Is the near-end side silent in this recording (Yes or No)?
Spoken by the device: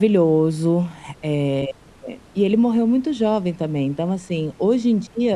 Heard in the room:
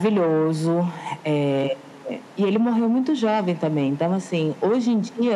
Yes